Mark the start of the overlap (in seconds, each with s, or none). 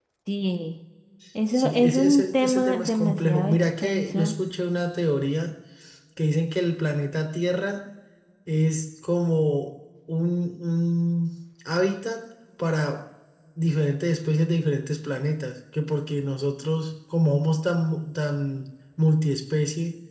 1.5 s